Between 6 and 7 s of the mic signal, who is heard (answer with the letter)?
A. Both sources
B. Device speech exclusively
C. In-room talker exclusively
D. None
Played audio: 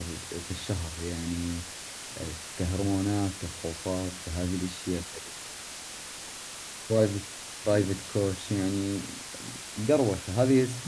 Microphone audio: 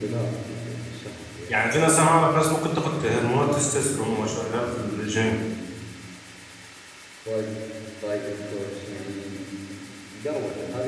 D